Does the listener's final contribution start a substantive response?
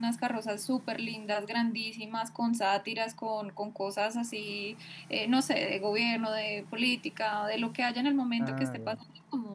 No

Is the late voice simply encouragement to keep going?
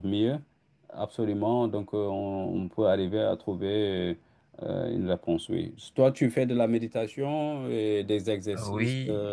No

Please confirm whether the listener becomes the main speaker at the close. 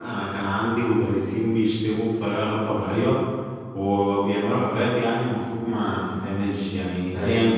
No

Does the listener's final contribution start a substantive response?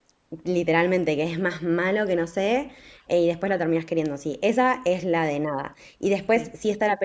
No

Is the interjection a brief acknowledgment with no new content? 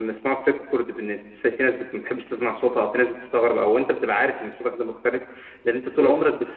Yes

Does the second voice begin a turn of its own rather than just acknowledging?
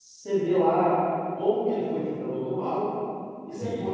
No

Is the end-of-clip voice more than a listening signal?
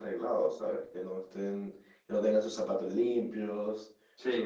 No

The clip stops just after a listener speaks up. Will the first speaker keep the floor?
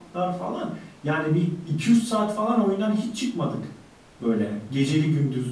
Yes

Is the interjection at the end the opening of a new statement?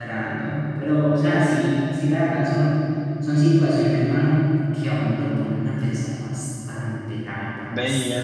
Yes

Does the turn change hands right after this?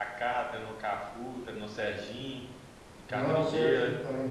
Yes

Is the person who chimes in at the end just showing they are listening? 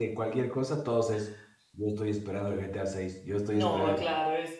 No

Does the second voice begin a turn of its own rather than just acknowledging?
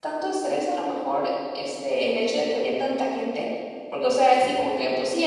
No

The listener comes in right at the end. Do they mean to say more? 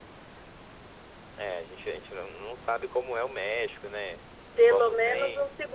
Yes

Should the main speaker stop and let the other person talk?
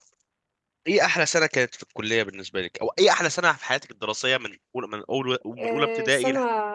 Yes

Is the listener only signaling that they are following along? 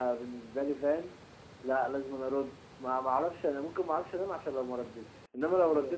No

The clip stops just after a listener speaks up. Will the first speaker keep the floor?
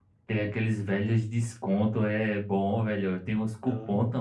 Yes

